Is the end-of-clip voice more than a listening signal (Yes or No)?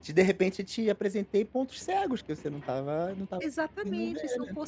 Yes